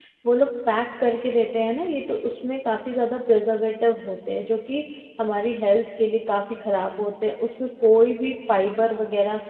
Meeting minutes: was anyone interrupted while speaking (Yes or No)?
No